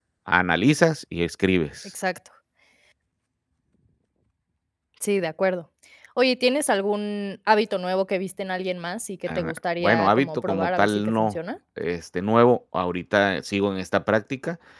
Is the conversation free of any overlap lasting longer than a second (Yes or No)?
No